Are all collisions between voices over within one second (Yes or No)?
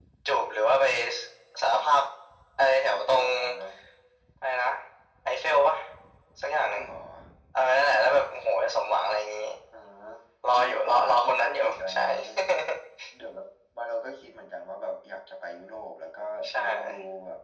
No